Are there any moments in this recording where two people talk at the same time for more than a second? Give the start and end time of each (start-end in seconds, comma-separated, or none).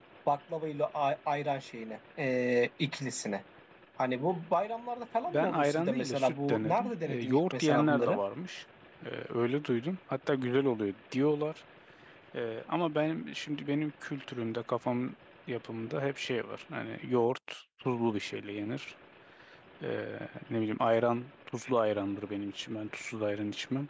5.3-8.2